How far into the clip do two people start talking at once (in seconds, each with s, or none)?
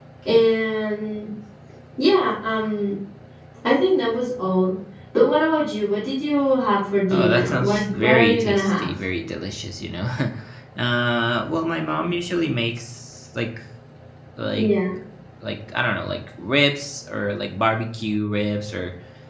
7.1 s